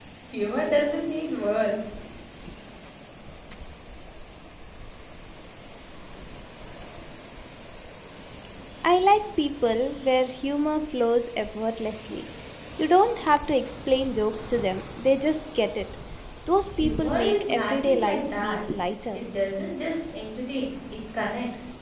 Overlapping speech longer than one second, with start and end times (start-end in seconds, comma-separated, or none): 16.8-18.6